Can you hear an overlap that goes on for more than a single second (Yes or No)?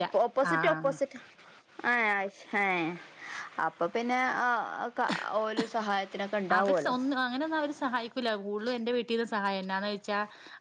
No